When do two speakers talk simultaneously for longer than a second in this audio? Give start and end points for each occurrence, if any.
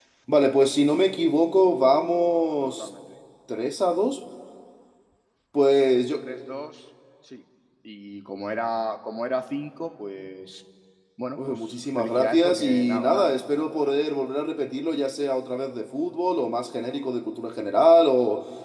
11.4-13.3

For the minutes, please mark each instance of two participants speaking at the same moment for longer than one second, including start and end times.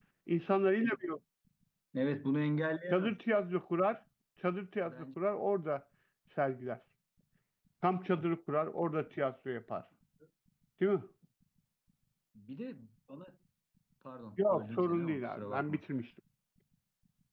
14.4-15.8

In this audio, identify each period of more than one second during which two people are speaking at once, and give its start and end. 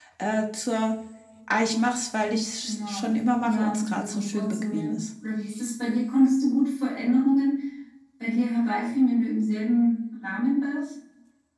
2.6-5.1

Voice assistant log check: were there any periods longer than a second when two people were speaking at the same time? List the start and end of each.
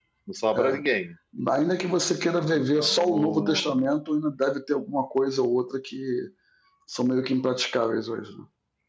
2.5-3.8

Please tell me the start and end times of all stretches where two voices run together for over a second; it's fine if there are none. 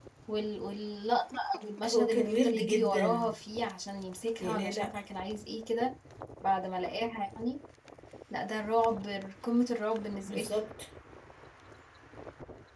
1.9-3.3

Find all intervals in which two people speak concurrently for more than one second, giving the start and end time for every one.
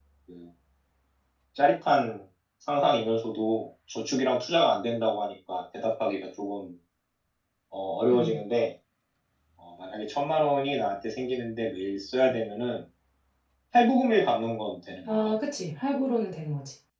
none

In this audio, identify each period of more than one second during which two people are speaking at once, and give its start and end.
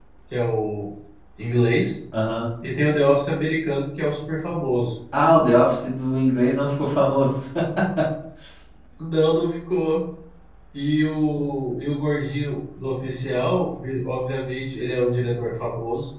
none

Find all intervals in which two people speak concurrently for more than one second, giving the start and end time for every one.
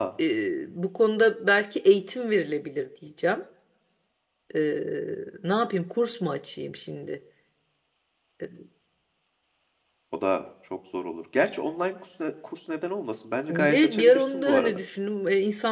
13.5-14.8

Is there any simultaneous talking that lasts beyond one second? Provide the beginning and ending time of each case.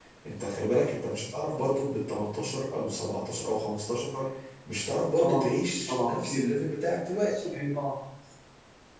none

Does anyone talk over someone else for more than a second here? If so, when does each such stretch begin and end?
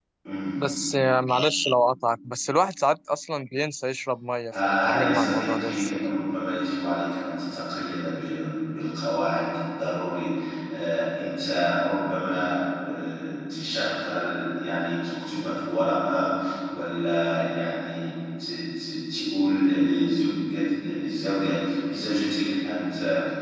4.5-6.0

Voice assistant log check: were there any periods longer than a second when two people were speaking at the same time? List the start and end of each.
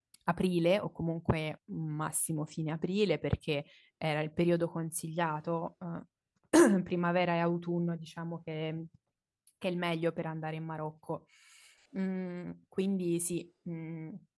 none

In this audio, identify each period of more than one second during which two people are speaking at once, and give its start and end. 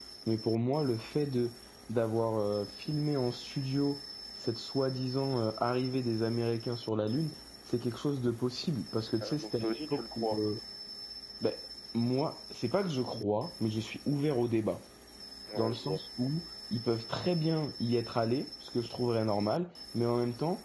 9.2-10.4

